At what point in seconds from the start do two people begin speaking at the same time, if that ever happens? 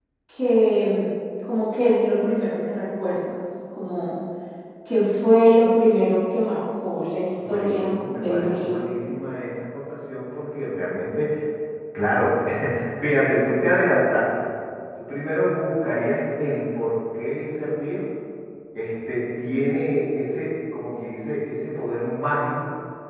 7.4 s

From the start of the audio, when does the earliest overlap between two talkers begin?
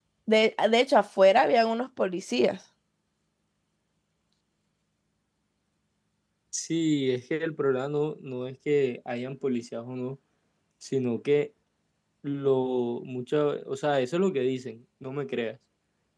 none

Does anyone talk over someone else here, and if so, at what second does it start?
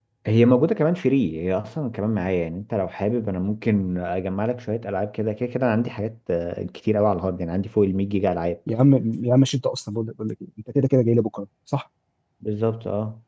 none

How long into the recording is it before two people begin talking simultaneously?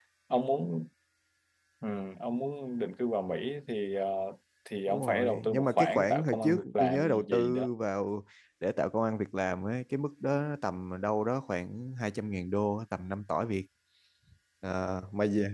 4.9 s

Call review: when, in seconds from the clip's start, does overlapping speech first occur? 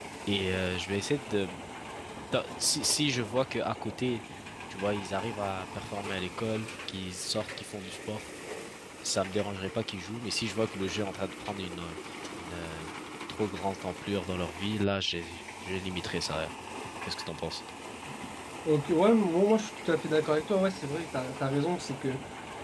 none

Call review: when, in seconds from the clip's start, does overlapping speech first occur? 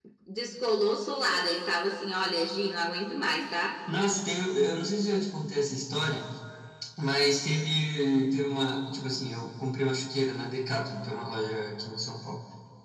none

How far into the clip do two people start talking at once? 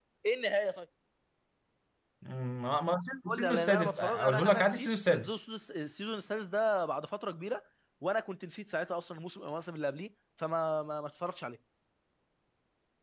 3.3 s

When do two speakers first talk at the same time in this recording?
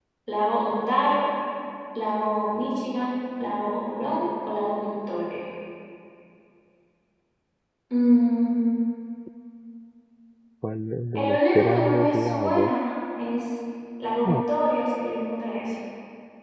11.2 s

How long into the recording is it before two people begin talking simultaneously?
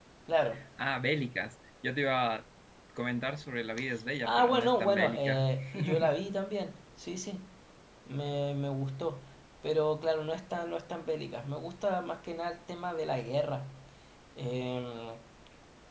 4.2 s

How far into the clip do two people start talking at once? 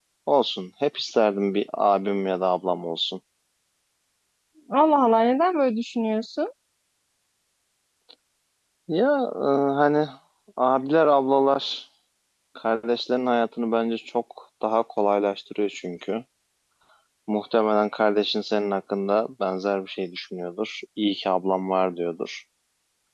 none

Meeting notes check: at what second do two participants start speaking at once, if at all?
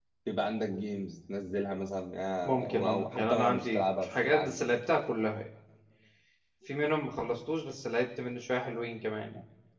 2.5 s

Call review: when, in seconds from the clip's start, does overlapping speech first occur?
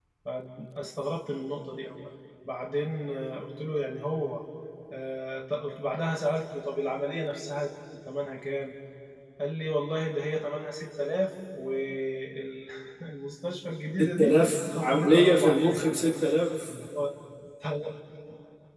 14.0 s

